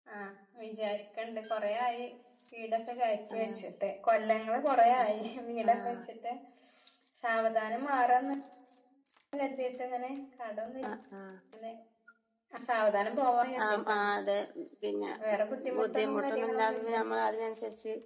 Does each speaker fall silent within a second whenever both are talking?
No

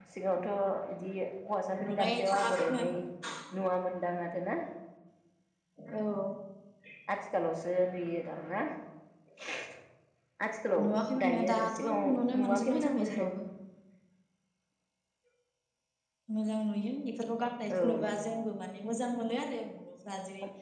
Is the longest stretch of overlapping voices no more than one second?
No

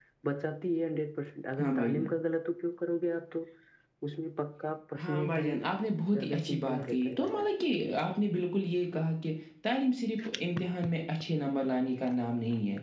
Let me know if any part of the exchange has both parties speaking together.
Yes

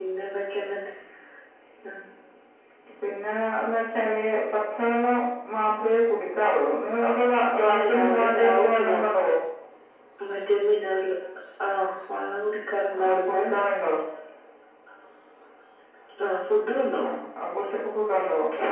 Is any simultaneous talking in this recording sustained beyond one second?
Yes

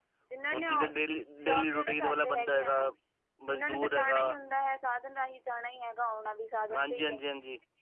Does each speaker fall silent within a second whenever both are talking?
No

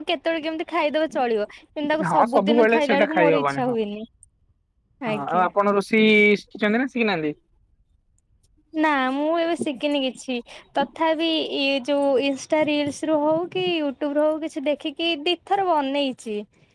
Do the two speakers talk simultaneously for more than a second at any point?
Yes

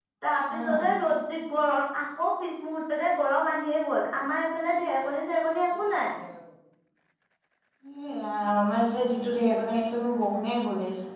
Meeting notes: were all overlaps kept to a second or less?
Yes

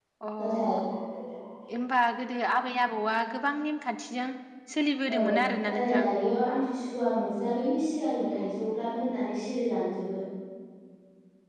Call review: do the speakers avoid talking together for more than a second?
Yes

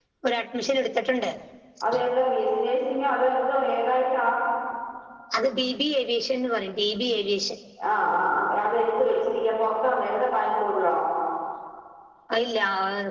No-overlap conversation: Yes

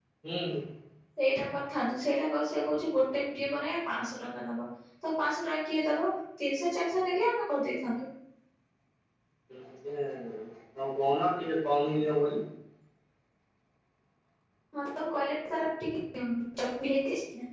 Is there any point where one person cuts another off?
No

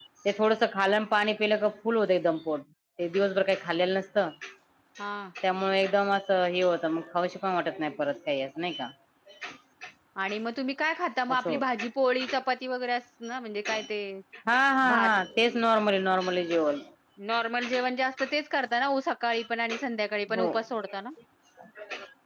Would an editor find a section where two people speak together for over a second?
No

